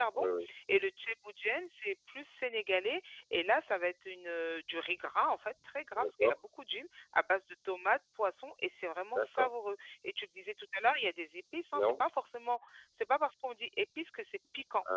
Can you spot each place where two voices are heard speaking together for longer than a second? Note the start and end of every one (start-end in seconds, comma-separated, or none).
none